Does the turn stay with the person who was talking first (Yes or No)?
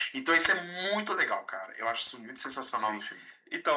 No